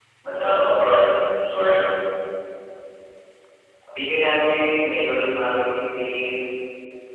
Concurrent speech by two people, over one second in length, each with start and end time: none

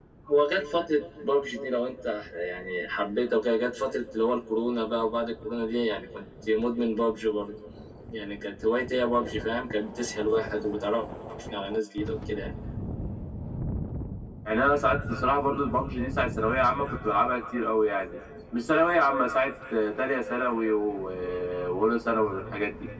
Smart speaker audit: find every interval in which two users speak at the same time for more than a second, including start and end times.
none

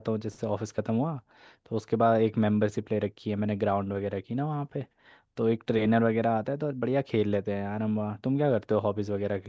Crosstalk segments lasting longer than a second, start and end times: none

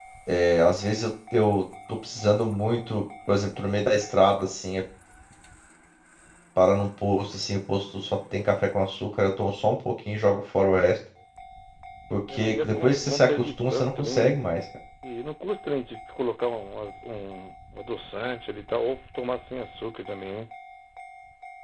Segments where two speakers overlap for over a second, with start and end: 12.3-14.3

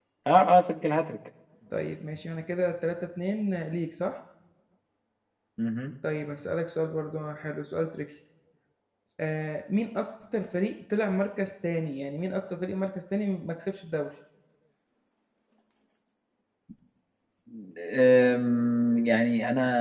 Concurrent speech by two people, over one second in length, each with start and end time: none

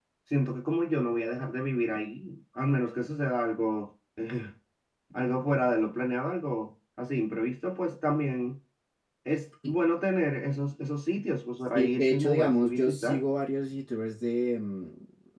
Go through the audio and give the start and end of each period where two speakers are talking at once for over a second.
11.8-13.2

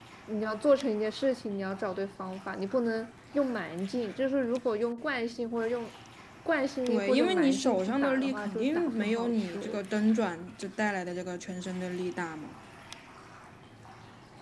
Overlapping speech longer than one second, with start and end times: 6.9-9.8

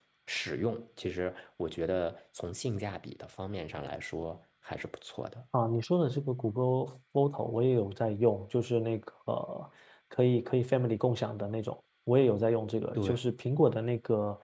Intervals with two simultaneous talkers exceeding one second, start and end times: none

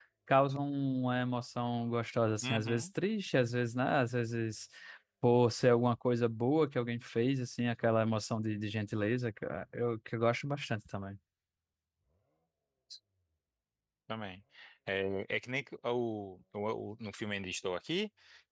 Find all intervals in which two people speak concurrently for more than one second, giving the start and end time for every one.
none

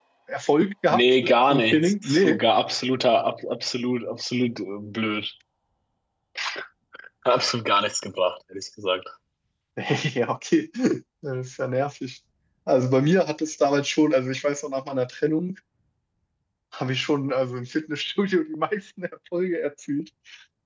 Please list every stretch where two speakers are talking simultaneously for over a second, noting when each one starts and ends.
0.9-2.4

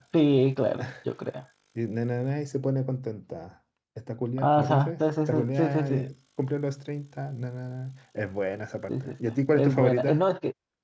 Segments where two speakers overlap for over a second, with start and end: 4.4-6.0, 8.9-10.3

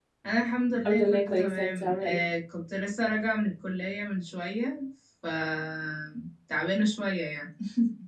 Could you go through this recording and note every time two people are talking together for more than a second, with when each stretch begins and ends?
0.8-2.2

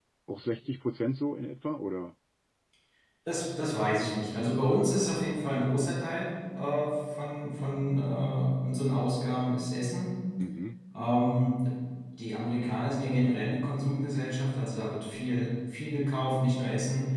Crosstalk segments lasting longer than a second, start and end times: none

